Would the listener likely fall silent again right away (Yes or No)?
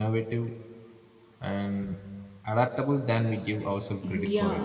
No